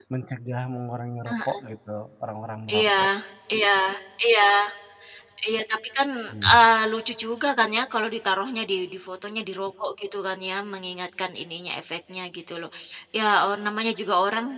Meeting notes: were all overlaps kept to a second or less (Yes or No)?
Yes